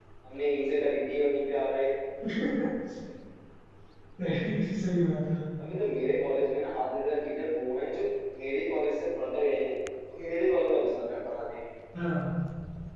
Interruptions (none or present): none